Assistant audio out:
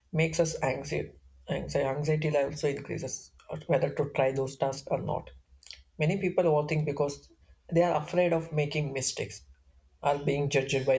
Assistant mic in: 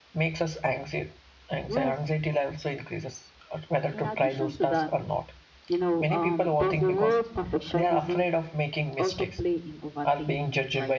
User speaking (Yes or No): Yes